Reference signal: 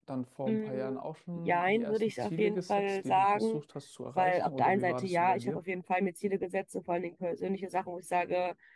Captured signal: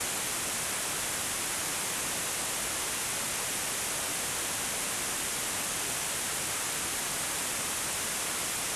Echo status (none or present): none